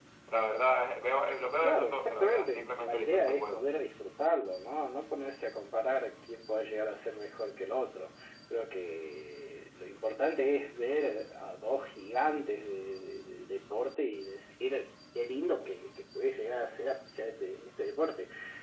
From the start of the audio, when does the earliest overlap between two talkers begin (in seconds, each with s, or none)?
1.6 s